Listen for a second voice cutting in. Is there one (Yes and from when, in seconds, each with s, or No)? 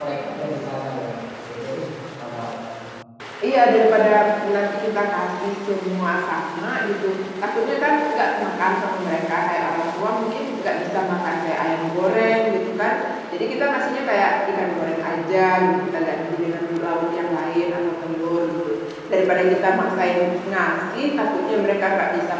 No